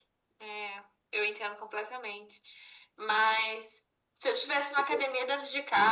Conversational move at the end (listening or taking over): listening